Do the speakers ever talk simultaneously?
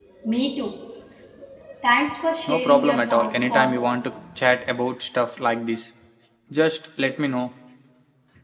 Yes, from 2.5 s

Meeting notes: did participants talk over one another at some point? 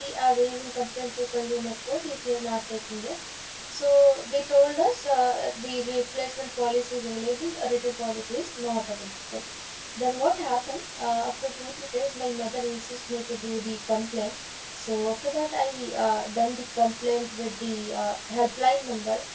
No

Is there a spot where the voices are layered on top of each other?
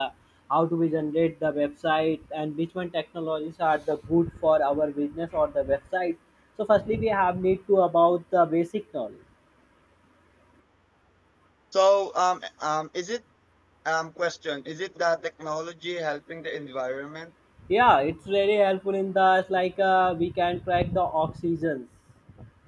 No

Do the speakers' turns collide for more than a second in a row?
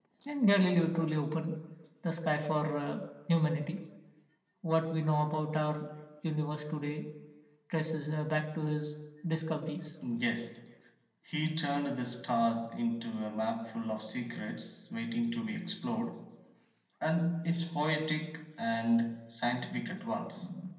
No

